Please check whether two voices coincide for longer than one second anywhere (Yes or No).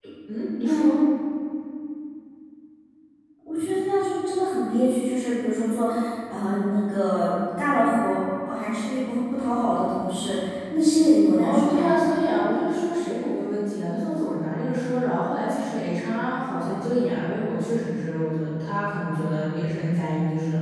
No